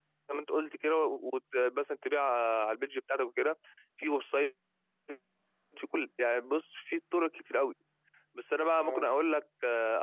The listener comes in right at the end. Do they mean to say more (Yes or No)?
No